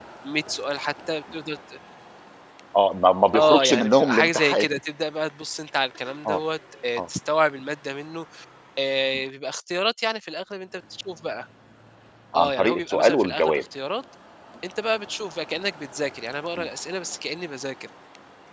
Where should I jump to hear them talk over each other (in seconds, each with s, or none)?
3.4 s